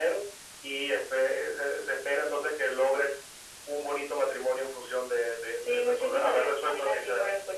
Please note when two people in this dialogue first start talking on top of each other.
5.7 s

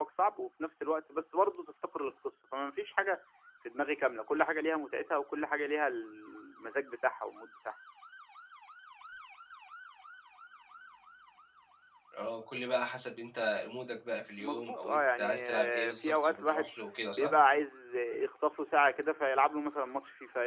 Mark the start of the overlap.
14.4 s

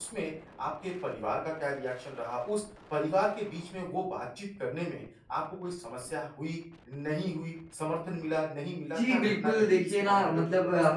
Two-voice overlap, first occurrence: 8.9 s

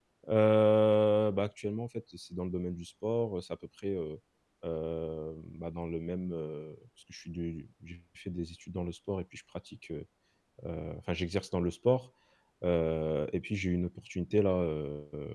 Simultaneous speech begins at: none

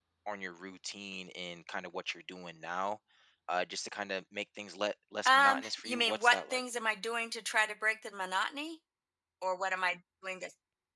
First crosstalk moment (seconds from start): 5.2 s

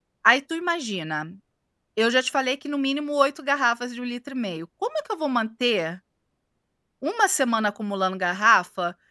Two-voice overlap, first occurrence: none

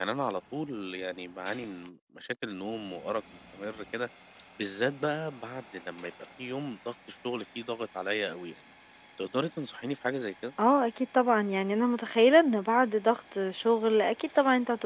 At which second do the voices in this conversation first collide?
none

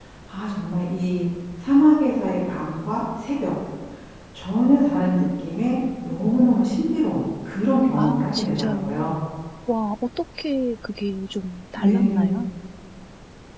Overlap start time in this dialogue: 8.0 s

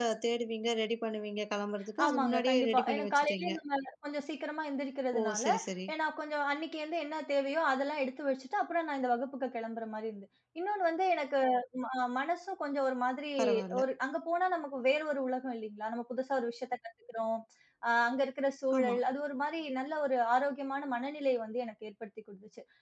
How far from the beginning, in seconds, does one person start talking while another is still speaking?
2.0 s

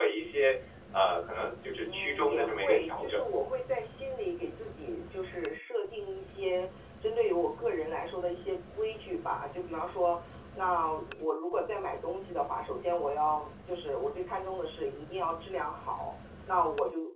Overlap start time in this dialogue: 1.8 s

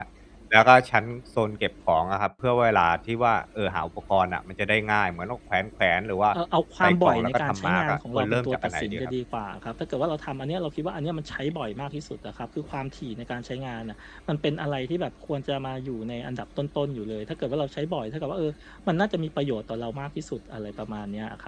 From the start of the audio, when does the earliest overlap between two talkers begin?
6.8 s

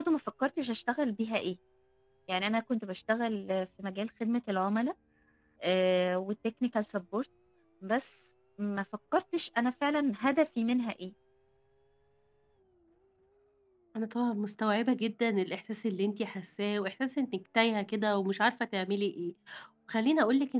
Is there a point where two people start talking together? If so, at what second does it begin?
none

